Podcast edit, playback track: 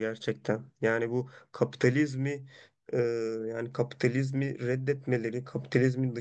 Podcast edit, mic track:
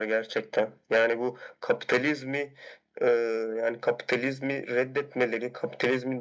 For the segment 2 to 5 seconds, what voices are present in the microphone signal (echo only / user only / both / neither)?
echo only